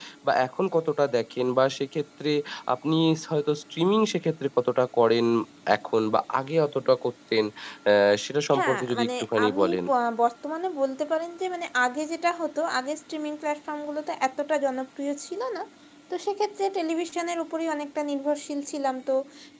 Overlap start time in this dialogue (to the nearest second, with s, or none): 9 s